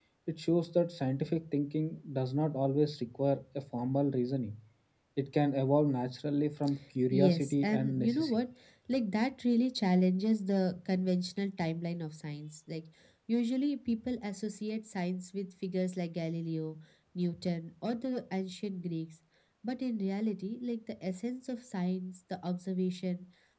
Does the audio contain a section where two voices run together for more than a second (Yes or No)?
Yes